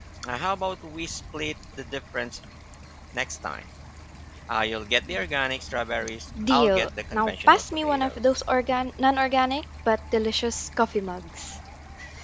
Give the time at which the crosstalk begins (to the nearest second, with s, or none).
6 s